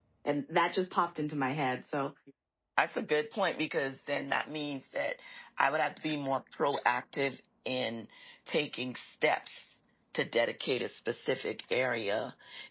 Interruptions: none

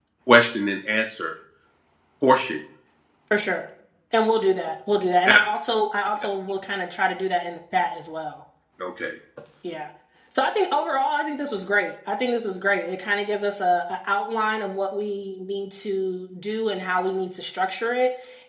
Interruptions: none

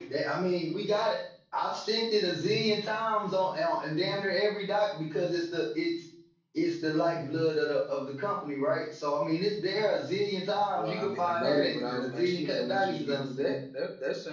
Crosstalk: present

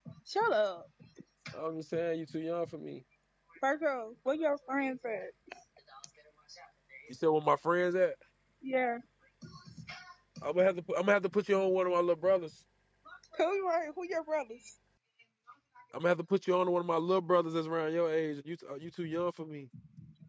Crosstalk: none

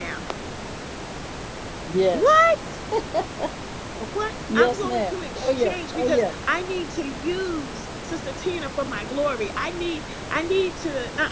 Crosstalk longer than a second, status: present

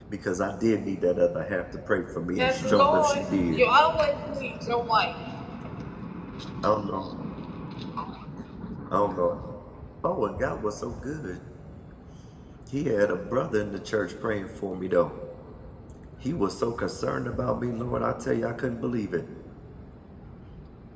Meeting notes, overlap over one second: present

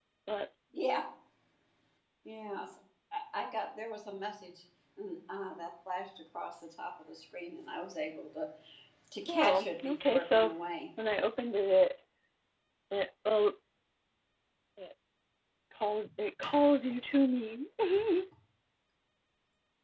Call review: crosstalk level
present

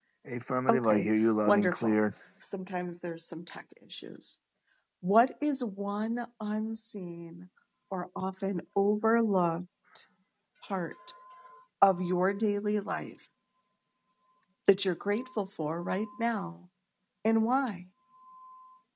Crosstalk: present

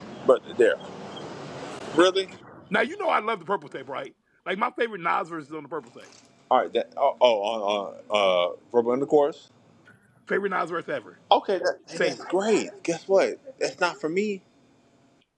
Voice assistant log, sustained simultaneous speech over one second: none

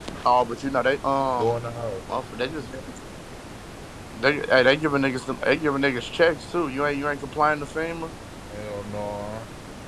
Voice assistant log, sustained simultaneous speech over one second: none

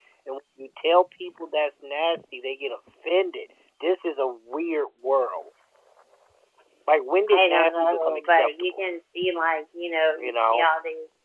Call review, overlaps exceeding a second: present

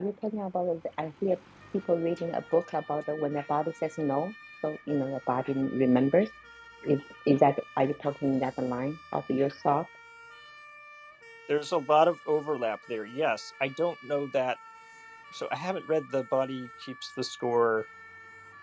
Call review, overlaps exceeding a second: none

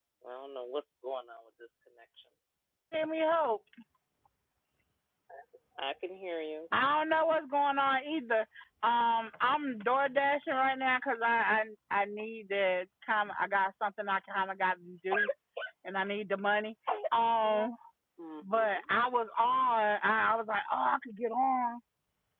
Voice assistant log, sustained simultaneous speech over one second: none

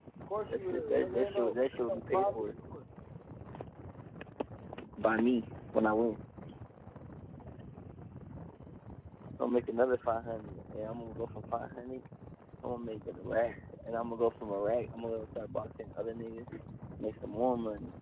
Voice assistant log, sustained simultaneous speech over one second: present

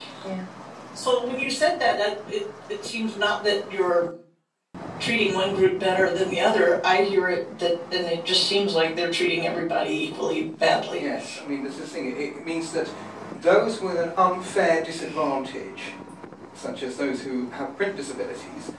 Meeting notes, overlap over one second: none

